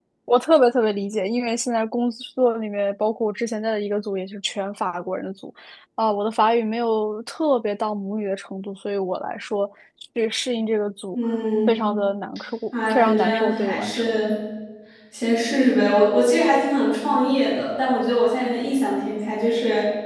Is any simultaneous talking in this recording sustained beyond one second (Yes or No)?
Yes